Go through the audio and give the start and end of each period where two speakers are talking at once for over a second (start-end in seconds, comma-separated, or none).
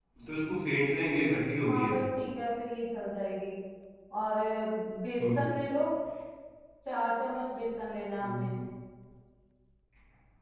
none